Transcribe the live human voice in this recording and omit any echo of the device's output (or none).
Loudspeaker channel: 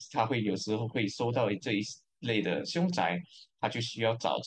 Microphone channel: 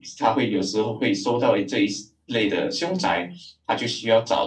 none